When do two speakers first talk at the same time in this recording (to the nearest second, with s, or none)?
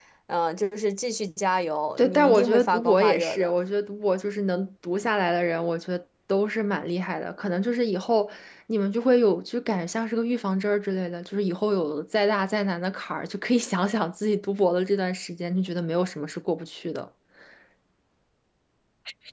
2 s